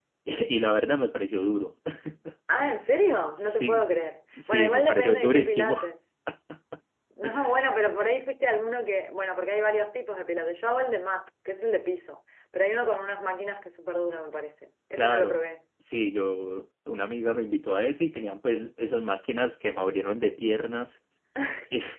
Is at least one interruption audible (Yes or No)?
Yes